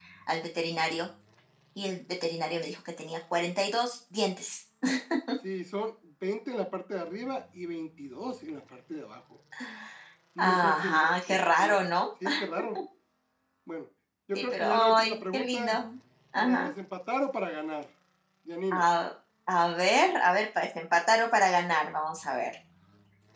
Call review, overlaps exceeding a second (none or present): present